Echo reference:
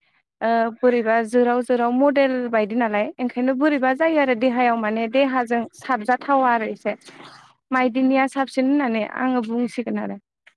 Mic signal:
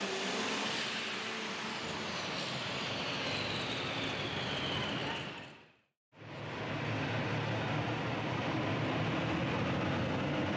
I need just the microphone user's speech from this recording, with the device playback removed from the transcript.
none

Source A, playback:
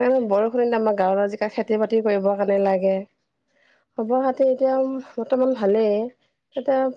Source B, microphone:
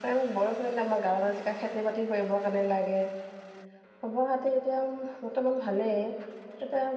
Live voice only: none

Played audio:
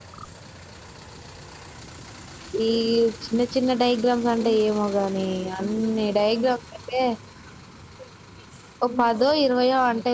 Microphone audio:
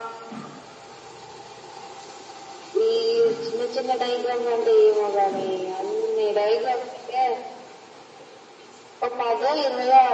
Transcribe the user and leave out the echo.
none

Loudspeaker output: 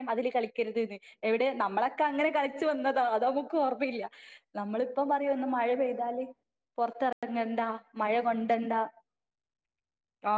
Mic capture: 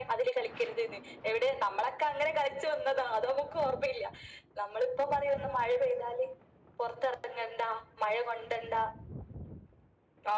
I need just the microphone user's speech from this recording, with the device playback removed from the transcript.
none

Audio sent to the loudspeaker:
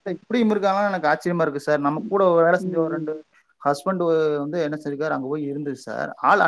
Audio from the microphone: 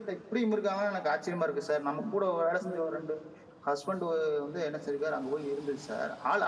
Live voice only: none

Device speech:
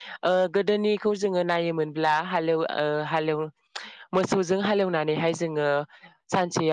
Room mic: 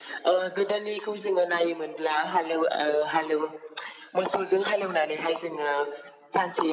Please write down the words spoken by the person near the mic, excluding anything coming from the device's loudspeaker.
none

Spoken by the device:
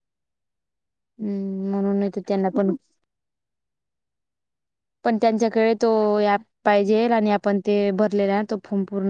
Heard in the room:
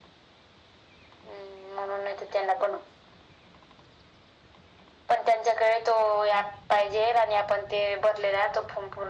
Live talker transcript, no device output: none

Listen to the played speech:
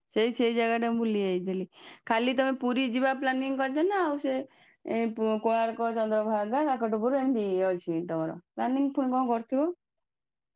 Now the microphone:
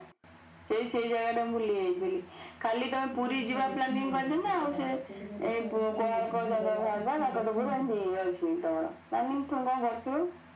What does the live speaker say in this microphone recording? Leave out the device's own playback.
ହଁ ସବୁ ଦେଖି ନାହାନ୍ତି କିଛି ତ ତାଙ୍କୁ ଟିକେ ଦେଖା ଦେେଖି କରି ବୁଝେଇ ଦବା ସେ ସବୁ ଦେଖନ୍ତୁ

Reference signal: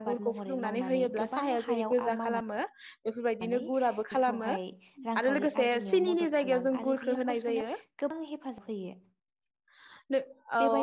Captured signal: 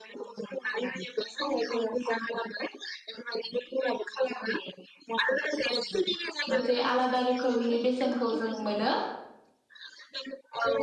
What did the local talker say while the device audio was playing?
मोनसे आलादा रोखोमनि बे सेनखौ जों मोनो।

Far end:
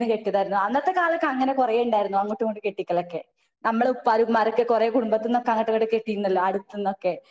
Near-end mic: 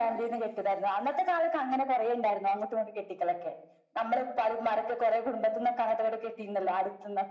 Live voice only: none

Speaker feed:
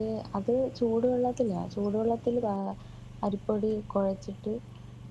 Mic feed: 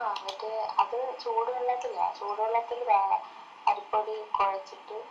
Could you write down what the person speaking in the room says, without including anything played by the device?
none

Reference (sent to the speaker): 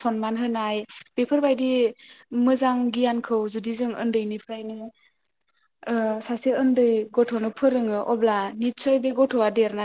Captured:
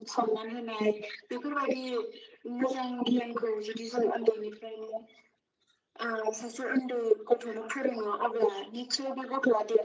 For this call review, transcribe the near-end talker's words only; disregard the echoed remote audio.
none

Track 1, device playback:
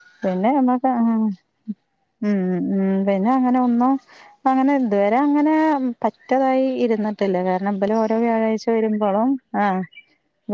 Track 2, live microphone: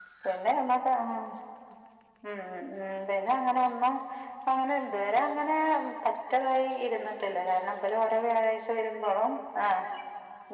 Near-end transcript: none

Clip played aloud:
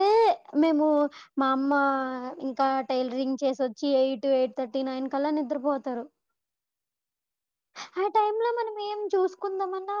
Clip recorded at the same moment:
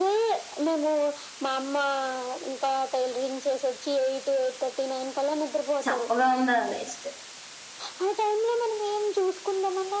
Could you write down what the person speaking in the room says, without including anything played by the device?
చప్పగా ఉందా వేస్ట్

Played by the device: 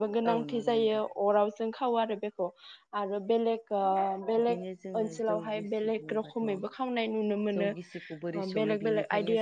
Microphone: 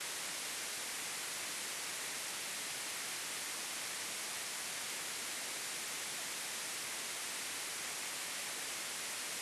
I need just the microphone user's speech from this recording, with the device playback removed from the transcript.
none

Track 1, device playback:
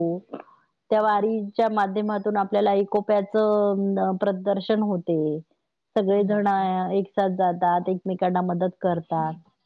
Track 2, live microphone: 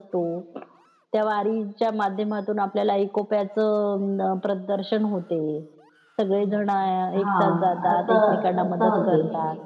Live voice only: हा असं अस होते

